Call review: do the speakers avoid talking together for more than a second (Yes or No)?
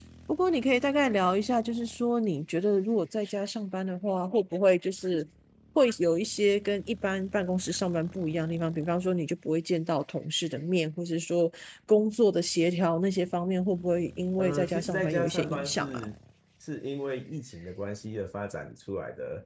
No